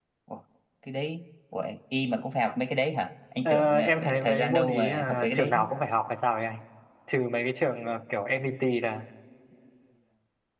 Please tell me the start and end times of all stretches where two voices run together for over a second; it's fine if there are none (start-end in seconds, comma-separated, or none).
3.5-5.7